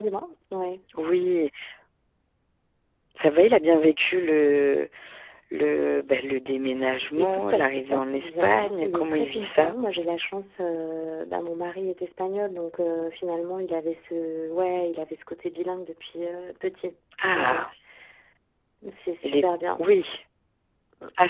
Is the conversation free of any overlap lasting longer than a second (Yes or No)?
No